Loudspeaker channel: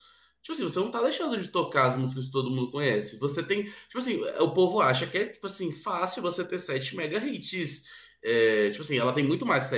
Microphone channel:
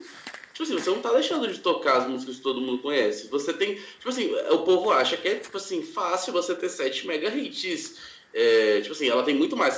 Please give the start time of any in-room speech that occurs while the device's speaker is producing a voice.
none

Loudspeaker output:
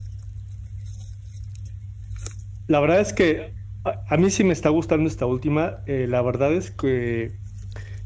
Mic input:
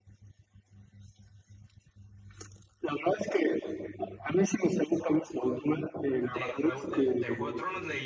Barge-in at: 6 s

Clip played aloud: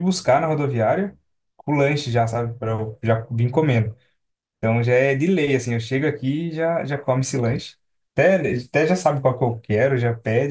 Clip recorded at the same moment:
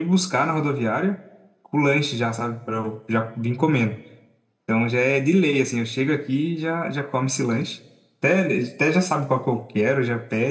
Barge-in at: none

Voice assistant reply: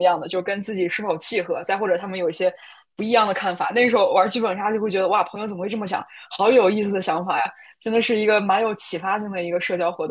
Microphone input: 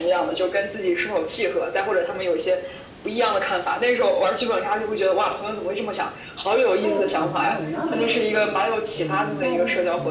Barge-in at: 7 s

